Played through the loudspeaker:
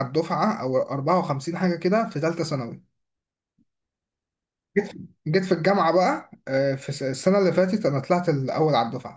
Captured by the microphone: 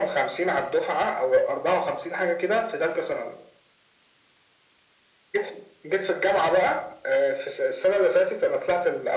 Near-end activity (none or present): none